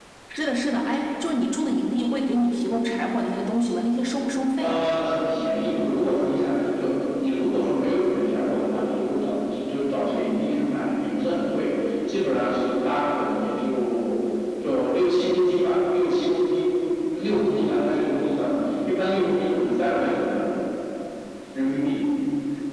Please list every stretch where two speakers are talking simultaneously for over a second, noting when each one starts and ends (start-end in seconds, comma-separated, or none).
none